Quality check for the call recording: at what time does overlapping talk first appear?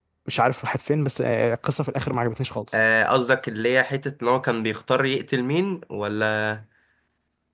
none

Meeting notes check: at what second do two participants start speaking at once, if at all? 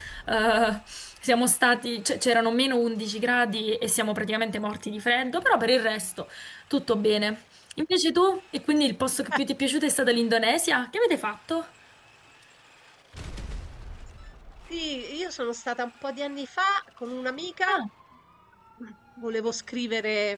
none

